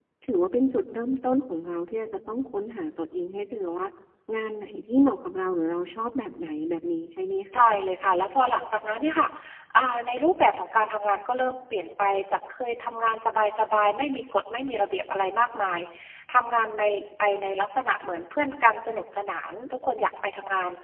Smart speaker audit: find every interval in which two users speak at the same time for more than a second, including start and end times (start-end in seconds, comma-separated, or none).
none